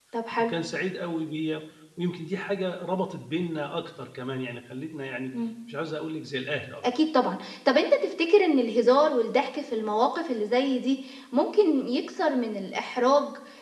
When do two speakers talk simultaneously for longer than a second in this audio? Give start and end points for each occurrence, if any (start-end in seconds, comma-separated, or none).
none